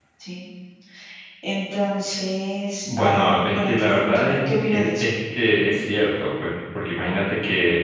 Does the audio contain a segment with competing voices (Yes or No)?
Yes